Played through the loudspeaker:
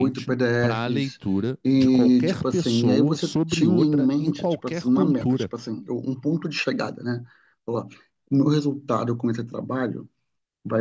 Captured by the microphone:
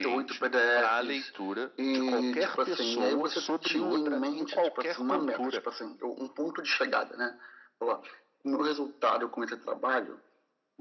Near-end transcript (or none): none